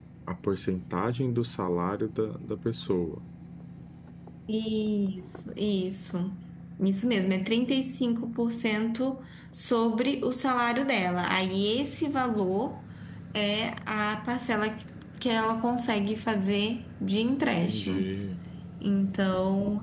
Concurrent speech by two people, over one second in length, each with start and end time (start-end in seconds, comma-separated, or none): none